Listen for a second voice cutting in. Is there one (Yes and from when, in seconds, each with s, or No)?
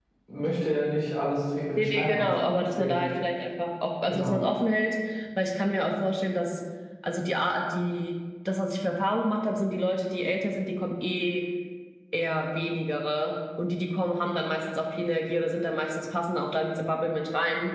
Yes, from 1.7 s